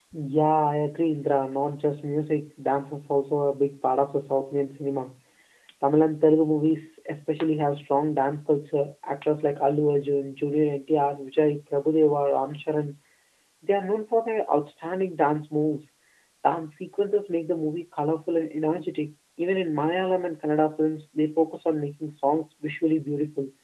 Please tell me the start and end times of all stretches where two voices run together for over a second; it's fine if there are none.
none

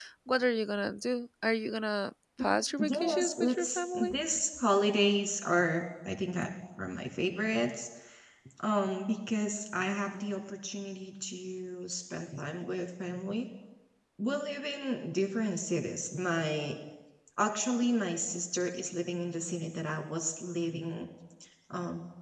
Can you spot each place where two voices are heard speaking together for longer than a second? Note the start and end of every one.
2.9-4.2

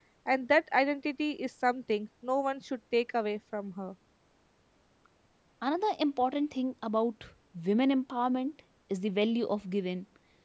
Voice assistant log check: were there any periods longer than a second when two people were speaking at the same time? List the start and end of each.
none

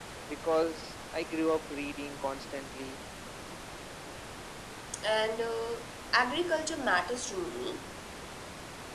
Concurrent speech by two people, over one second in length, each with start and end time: none

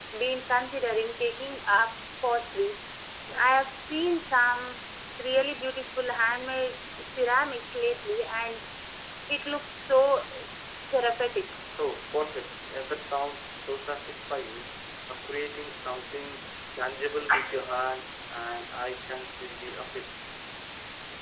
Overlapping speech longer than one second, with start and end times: none

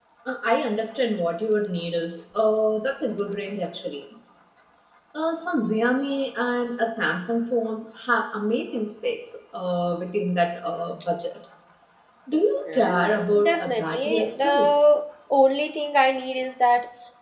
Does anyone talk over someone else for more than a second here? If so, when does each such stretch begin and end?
12.7-14.7

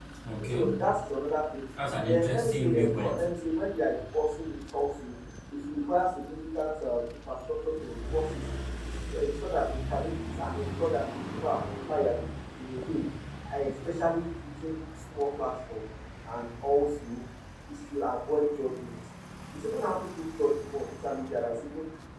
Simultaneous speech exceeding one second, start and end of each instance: 2.1-3.3

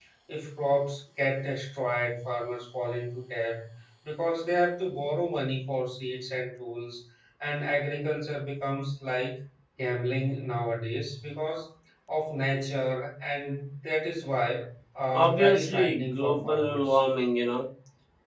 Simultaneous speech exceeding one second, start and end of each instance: 15.1-17.0

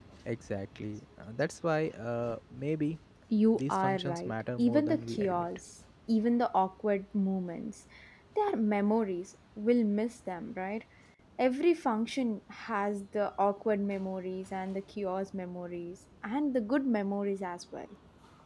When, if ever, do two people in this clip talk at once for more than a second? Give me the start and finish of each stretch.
3.5-5.5

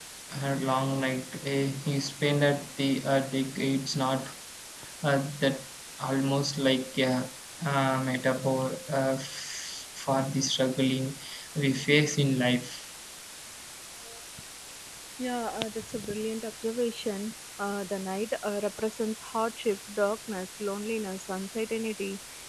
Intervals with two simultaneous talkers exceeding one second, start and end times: none

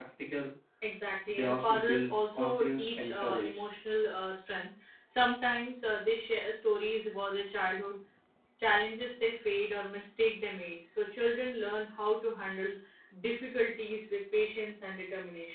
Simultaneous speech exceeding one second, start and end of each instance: 1.3-3.6

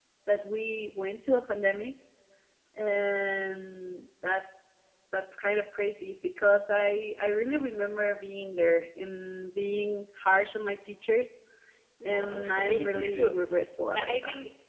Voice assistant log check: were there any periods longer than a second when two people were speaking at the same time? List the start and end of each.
12.0-13.4

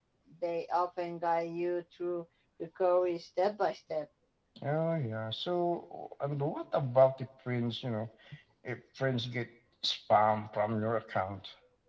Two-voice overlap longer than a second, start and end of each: none

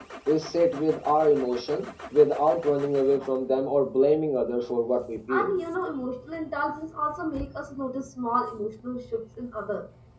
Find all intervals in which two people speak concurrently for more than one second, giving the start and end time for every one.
none

